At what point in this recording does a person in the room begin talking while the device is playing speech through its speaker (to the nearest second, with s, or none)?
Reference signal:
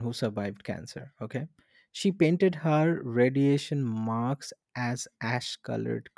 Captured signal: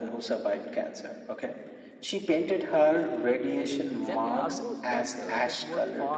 4 s